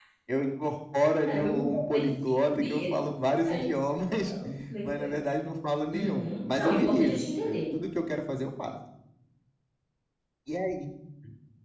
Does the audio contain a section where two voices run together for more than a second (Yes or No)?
Yes